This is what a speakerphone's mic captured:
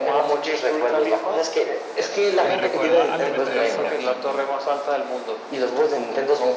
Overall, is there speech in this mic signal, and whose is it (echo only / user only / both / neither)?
both